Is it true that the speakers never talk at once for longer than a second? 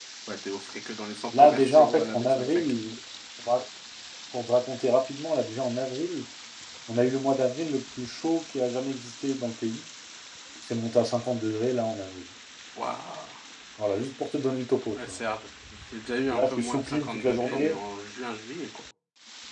No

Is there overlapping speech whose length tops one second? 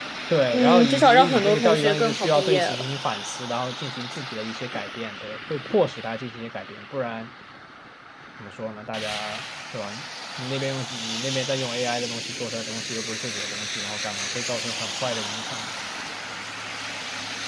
Yes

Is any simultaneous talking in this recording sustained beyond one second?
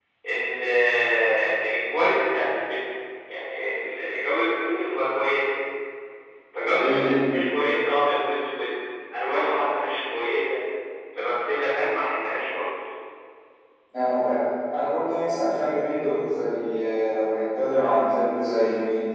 No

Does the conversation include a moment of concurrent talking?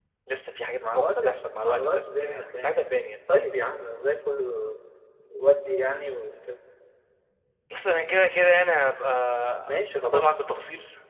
Yes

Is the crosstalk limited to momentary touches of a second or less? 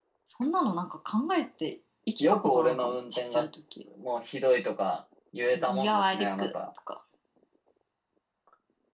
No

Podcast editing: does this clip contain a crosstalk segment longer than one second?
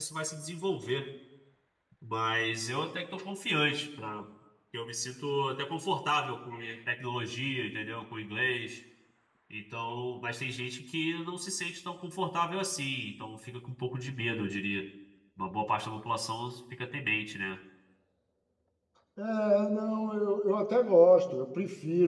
No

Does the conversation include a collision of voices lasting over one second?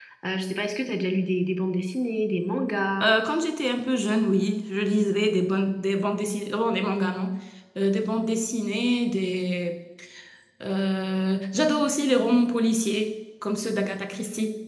No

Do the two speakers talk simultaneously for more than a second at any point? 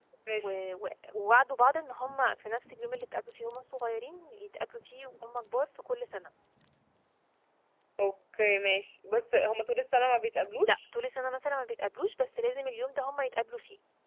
No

